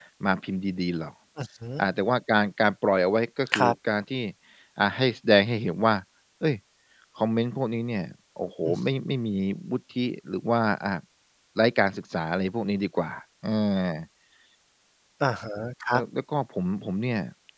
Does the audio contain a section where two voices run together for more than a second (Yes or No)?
No